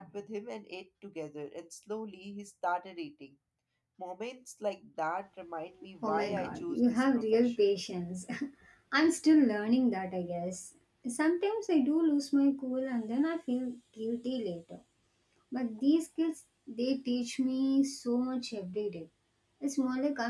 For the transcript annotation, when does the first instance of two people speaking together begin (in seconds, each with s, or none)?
6.0 s